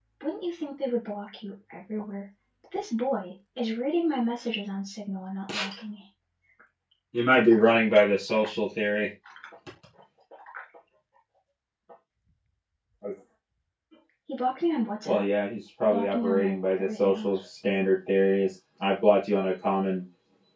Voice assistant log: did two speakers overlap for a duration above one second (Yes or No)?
Yes